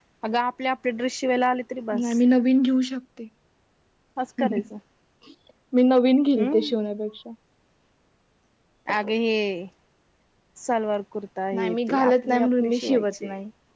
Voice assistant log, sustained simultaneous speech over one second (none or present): present